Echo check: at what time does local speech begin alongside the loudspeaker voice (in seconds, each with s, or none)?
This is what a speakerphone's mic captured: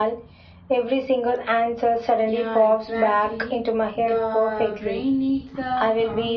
2.3 s